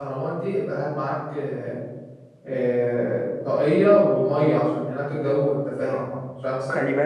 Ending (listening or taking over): taking over